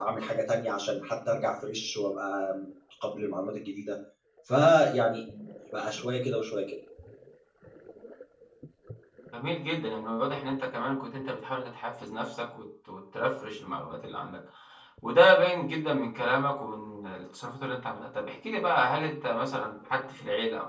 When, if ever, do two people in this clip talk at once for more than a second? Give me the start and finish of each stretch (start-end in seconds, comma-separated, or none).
none